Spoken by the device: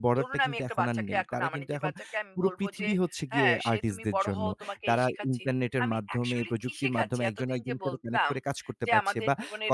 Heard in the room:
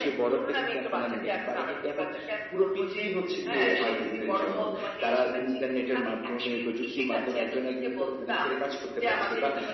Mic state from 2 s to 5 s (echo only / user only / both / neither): echo only